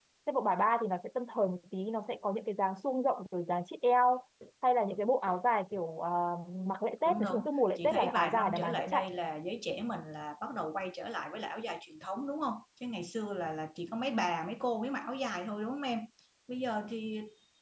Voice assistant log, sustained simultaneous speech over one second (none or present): present